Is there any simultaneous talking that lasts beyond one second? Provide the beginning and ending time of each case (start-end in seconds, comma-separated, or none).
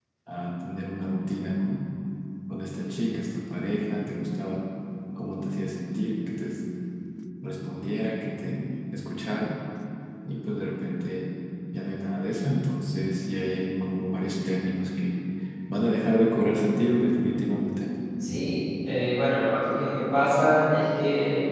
none